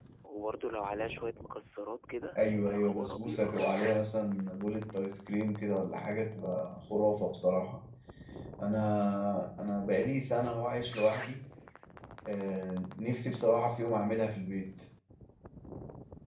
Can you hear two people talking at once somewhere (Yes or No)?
Yes